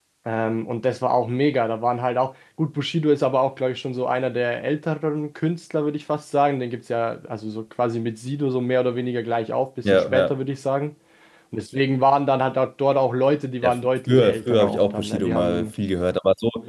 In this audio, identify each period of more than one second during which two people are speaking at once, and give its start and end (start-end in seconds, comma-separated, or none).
13.6-15.7